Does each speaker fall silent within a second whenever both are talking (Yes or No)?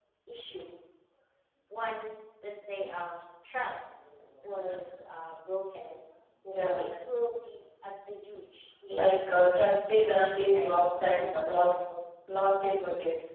No